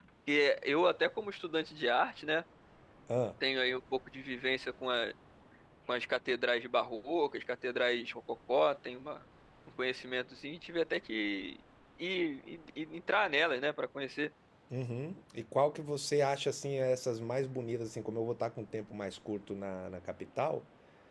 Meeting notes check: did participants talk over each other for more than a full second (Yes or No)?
No